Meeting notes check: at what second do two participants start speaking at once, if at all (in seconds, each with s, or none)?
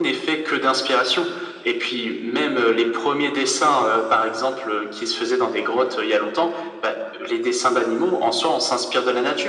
none